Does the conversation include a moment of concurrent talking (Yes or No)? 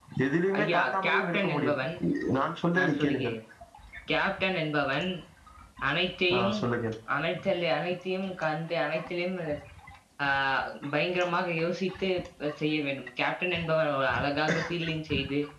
Yes